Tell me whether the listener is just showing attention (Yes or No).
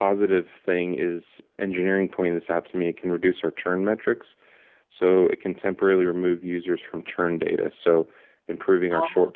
Yes